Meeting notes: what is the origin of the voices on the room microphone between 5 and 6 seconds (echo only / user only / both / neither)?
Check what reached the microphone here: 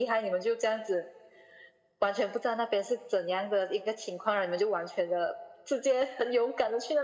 echo only